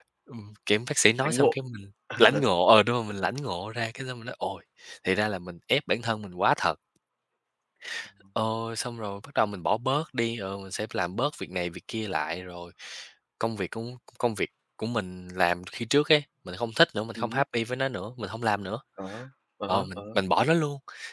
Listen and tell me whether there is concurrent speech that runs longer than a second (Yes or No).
No